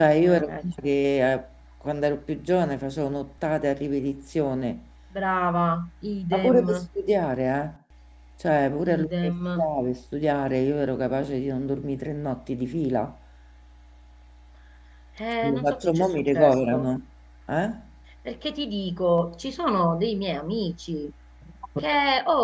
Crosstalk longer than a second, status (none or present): present